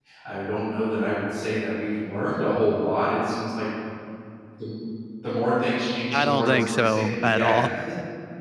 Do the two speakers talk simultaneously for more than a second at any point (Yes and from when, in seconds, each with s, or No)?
Yes, from 6.1 s